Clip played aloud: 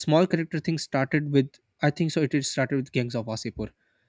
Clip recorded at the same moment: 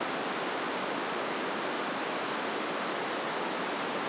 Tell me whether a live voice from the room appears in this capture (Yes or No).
No